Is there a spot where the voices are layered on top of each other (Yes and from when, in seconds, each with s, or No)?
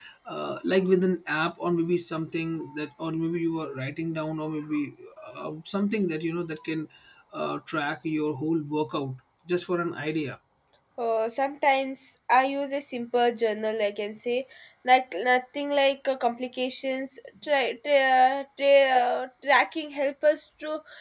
No